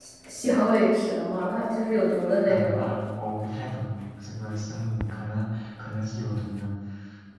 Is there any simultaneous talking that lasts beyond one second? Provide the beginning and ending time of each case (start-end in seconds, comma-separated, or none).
none